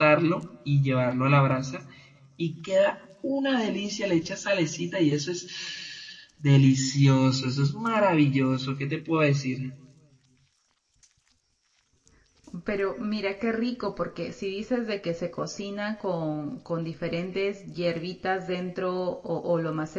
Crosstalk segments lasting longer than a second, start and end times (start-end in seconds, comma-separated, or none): none